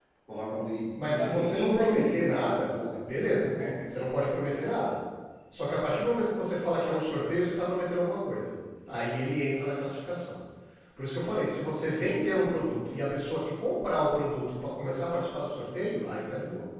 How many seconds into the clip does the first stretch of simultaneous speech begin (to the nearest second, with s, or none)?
1 s